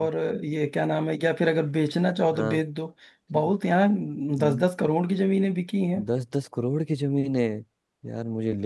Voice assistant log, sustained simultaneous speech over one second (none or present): none